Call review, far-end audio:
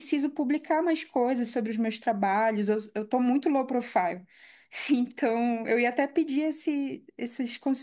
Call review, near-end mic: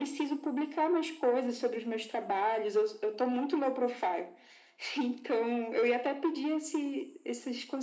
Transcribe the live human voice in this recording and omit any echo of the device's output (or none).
none